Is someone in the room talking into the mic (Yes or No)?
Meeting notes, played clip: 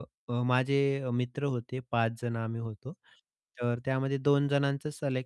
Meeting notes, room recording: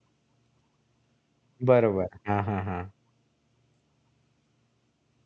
Yes